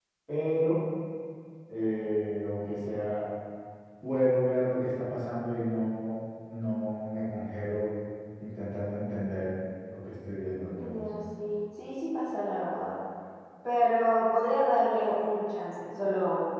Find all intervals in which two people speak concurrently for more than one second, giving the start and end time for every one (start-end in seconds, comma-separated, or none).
none